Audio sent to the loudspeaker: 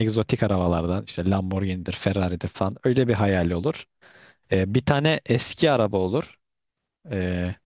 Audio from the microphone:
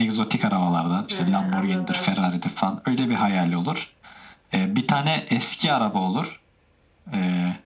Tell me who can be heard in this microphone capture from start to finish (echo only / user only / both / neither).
both